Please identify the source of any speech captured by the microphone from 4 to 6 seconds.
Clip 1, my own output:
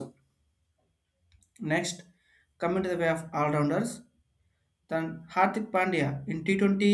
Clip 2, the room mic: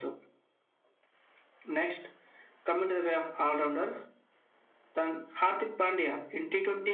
echo only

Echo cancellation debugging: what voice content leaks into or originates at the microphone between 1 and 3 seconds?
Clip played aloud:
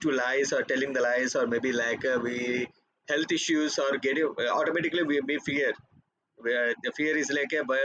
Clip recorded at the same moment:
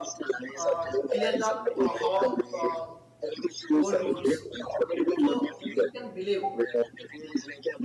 both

